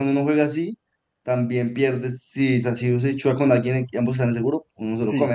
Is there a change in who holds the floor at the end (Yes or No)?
Yes